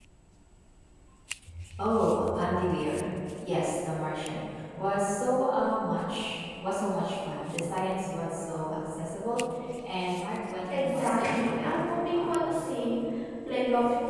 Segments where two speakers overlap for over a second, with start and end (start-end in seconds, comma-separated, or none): 10.7-12.7